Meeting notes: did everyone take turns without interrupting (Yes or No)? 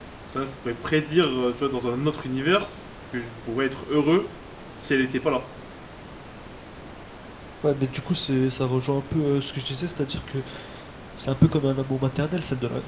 Yes